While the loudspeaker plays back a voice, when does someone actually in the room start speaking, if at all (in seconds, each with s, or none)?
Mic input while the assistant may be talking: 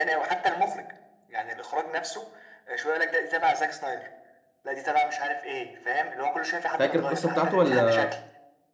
6.8 s